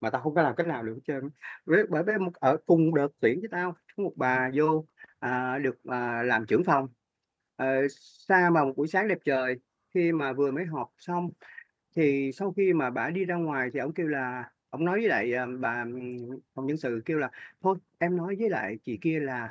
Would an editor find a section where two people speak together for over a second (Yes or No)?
No